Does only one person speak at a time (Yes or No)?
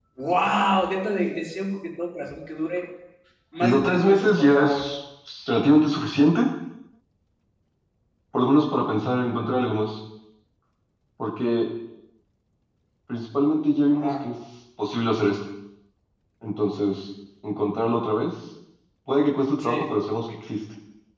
No